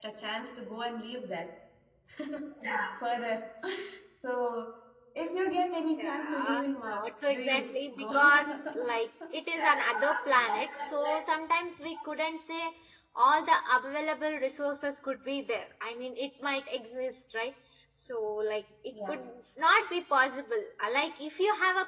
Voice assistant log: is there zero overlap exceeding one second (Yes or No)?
No